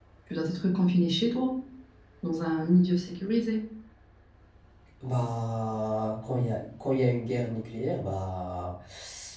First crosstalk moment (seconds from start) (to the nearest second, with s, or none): none